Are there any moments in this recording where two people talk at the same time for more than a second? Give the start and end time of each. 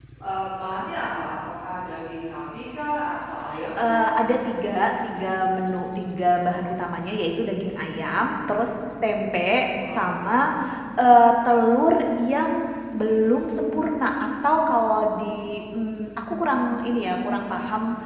none

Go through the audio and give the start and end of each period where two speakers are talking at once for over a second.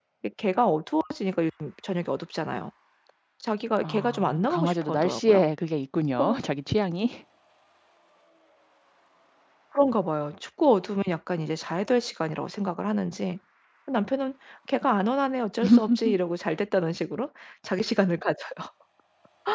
3.8-5.4

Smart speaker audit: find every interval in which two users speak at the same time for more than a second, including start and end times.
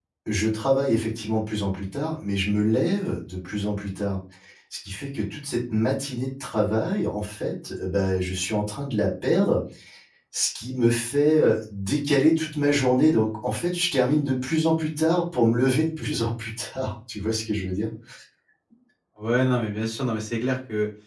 none

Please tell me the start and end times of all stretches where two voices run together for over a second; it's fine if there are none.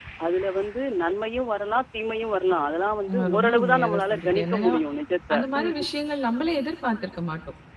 3.1-4.7

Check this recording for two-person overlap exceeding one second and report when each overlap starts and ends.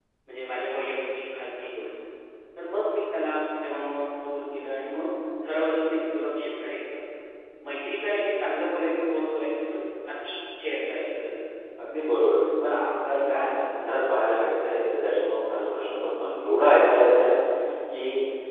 none

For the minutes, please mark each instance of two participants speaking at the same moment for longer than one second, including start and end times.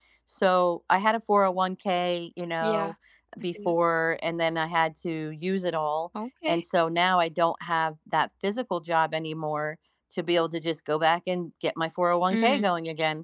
none

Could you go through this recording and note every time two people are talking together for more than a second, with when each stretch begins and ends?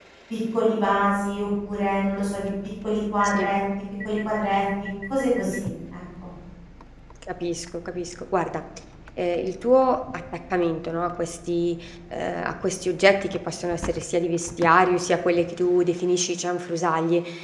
none

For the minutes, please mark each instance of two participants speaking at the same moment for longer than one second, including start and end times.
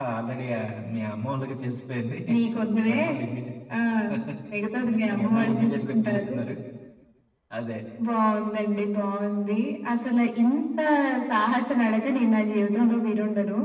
5.1-6.3

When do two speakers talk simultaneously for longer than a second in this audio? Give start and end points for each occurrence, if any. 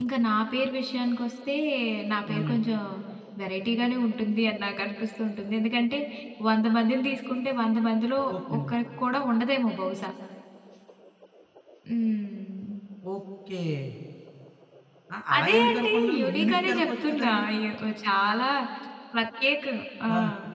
15.4-17.4

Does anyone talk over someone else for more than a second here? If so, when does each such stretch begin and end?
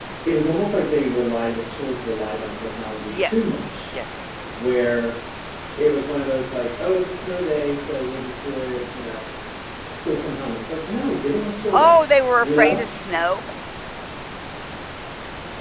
none

